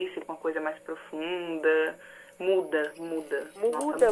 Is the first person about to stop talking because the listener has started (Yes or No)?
Yes